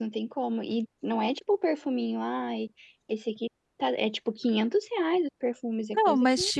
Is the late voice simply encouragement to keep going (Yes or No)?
No